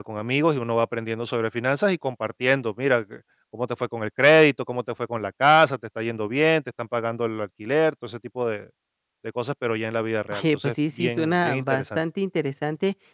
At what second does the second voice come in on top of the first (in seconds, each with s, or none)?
10.3 s